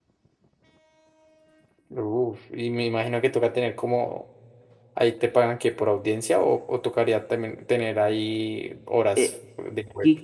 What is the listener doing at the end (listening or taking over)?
taking over